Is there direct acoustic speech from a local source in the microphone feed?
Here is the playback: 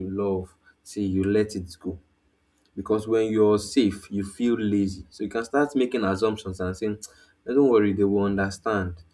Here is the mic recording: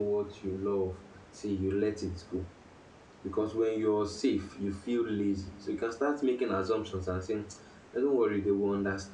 No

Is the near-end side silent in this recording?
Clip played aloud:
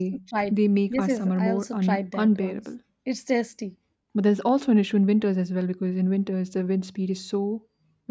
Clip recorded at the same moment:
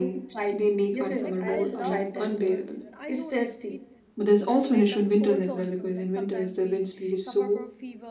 No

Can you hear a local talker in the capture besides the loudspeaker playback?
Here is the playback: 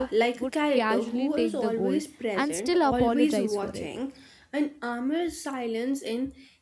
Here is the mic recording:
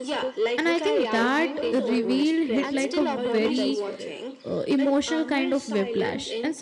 Yes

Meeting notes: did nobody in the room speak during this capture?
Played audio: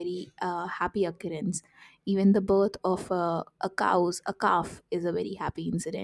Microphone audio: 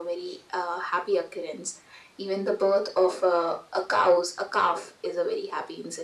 Yes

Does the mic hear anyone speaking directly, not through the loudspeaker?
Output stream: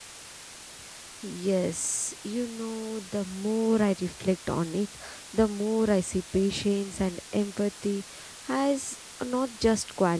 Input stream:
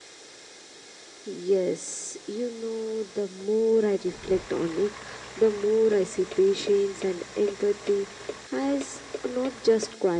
No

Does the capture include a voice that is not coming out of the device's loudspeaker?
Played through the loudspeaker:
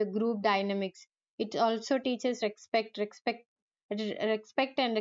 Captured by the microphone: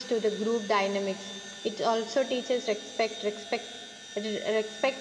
No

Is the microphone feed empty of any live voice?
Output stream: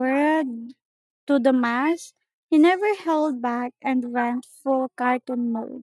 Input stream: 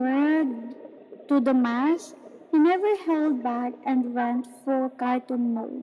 Yes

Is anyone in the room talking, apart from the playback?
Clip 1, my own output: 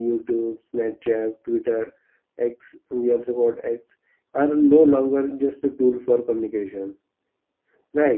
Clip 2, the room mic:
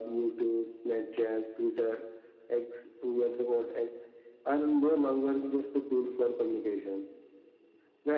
No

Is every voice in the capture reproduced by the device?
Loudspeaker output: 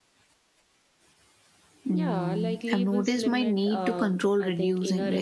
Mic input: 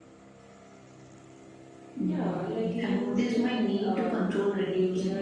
Yes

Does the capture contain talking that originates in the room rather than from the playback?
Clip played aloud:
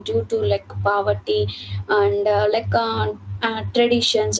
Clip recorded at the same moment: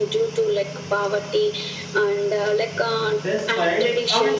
Yes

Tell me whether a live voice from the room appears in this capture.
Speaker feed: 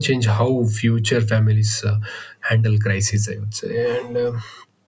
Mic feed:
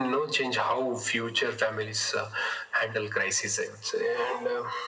No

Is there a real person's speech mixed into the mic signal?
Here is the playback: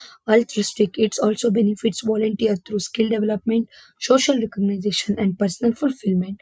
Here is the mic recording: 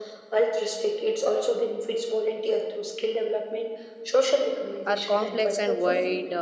Yes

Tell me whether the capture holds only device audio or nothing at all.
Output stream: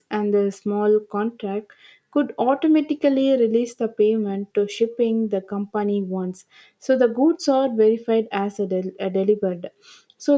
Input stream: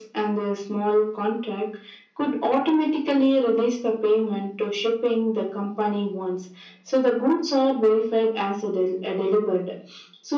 Yes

